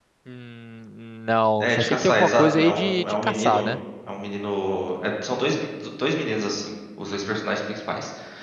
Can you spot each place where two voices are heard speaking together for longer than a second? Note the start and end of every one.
1.6-3.7

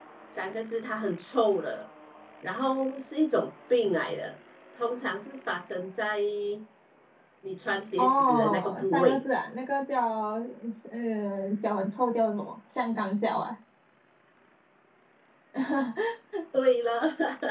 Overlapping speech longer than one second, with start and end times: 8.0-9.2

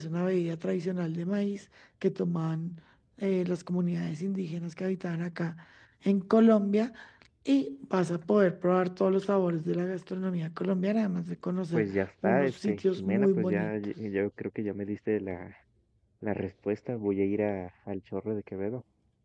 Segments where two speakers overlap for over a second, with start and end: 11.7-13.7

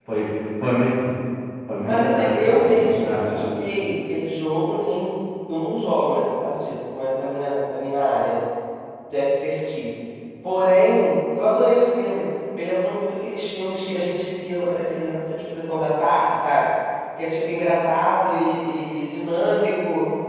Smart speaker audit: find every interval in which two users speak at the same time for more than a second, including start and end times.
1.8-3.5

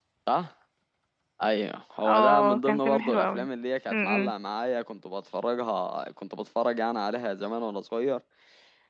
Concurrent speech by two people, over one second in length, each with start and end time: 2.0-3.5

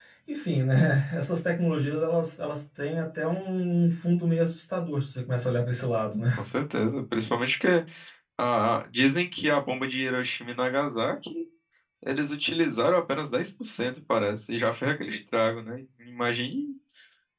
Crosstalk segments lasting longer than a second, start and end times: none

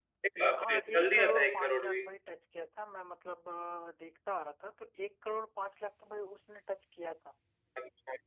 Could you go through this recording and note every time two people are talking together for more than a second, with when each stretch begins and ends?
0.6-2.0

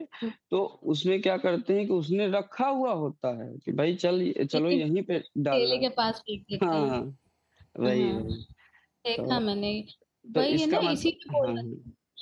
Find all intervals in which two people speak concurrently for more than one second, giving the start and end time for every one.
10.4-11.6

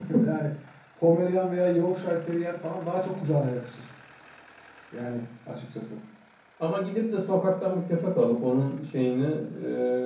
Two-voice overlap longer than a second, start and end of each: none

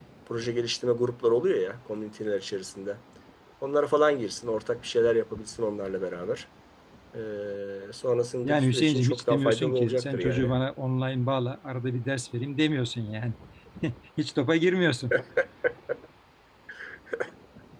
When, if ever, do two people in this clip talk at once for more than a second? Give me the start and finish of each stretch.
8.4-10.5

